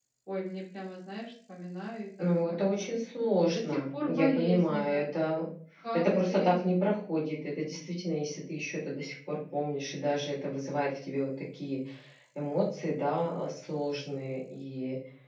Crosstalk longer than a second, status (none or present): present